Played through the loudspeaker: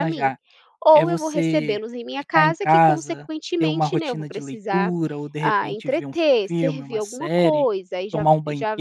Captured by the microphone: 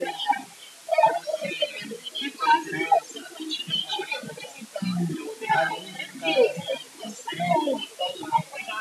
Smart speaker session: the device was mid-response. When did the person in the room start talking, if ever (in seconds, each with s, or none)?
5.5 s